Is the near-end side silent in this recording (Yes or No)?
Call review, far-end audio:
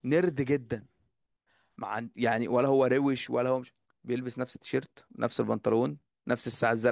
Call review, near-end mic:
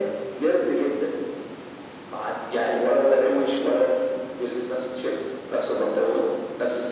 Yes